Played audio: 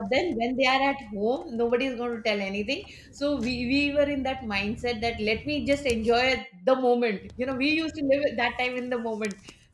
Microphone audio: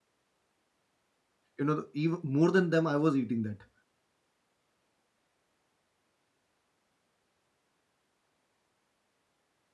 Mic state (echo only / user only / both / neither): user only